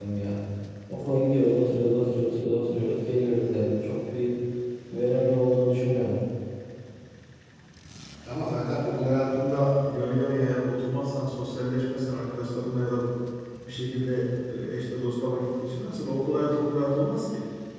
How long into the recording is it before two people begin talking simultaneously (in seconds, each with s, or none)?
none